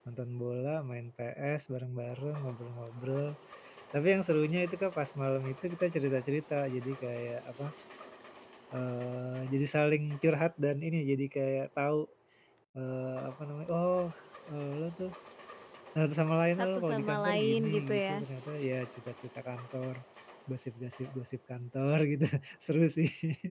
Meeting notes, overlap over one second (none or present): present